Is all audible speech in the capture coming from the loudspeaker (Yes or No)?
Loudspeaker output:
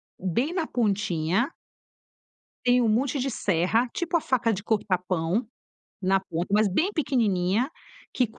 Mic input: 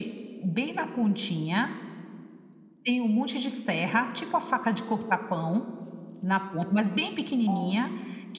No